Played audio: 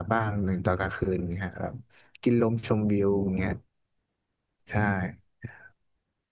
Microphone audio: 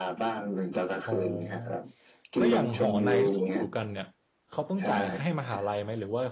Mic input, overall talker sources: both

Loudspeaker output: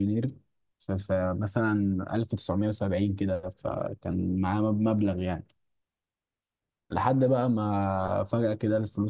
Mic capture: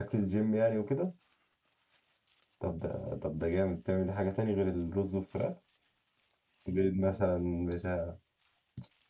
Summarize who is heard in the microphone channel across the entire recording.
user only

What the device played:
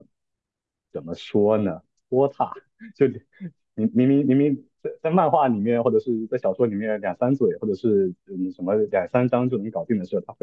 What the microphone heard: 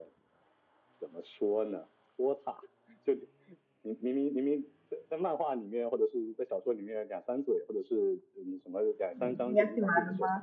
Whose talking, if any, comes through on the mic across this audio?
both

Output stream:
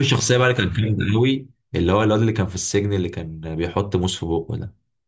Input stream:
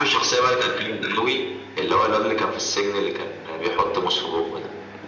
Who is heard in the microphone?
echo only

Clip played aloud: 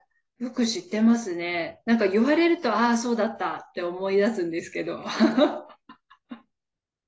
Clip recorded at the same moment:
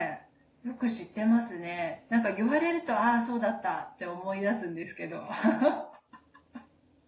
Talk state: echo only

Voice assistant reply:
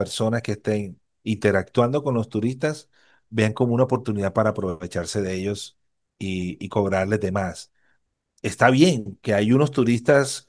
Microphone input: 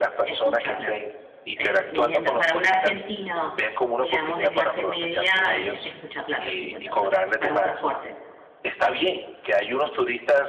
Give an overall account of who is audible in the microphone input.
both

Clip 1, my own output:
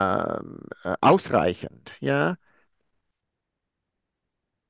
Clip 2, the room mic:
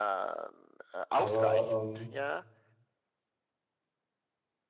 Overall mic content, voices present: both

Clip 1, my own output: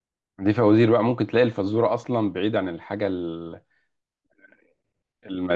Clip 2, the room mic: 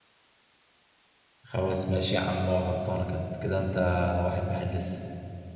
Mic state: user only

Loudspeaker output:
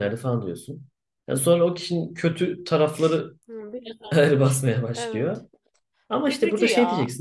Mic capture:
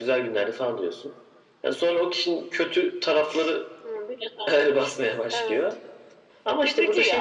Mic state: echo only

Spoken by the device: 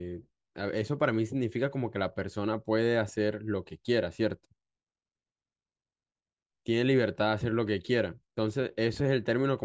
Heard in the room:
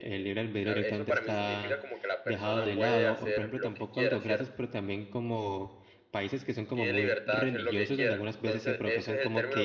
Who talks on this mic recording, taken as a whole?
both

